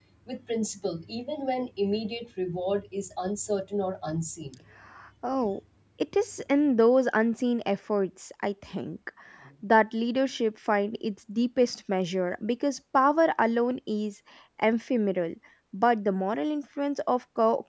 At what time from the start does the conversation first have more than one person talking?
none

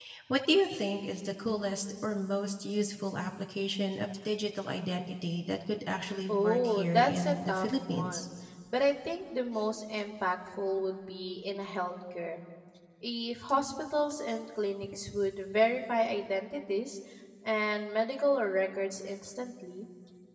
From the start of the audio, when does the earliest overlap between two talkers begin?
6.3 s

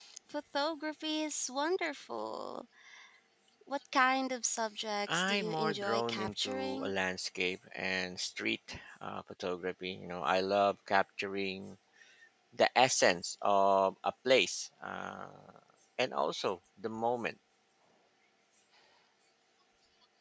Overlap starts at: 5.1 s

